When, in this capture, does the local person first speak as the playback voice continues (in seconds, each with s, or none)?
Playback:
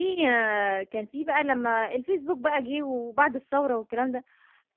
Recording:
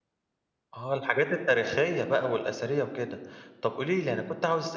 0.7 s